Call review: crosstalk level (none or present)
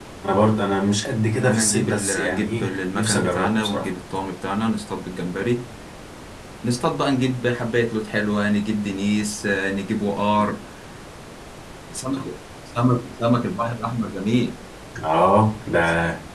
present